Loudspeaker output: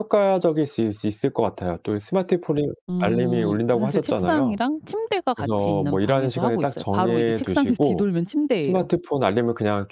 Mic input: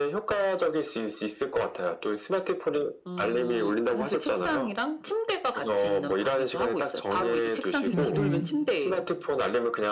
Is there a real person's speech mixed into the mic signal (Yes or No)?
Yes